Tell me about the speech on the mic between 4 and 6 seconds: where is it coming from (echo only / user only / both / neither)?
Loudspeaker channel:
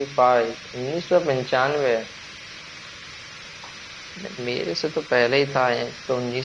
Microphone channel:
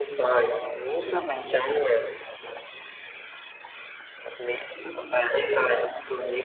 echo only